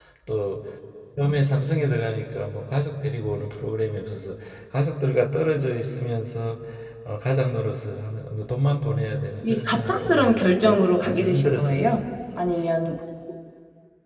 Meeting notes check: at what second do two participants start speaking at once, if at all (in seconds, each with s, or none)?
9.4 s